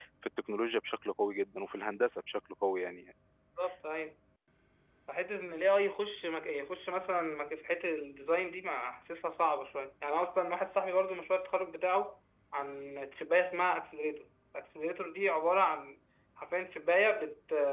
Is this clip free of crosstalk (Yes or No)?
Yes